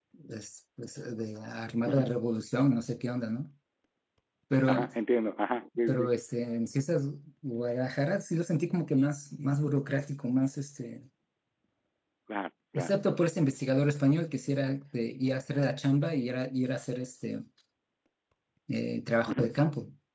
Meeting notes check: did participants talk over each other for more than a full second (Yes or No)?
No